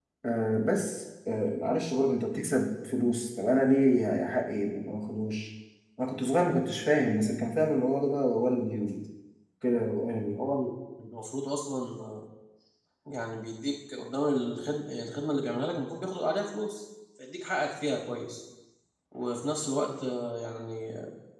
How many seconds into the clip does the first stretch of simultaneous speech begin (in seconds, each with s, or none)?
none